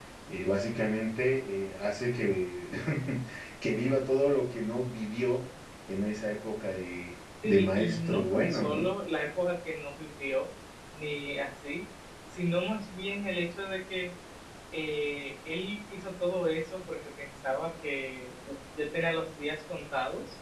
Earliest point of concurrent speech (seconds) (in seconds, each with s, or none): 7.4 s